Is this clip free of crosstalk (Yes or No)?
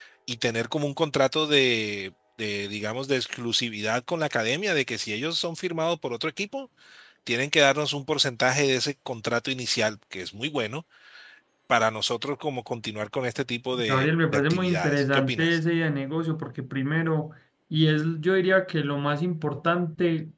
No